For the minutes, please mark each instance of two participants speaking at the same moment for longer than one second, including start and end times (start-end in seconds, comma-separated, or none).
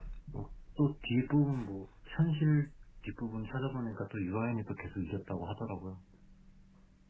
none